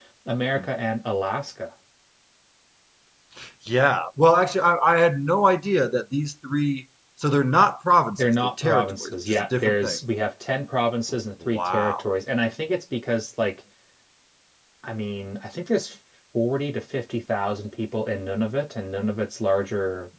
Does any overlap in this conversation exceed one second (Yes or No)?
Yes